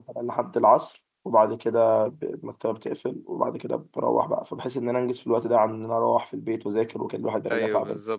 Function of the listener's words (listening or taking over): taking over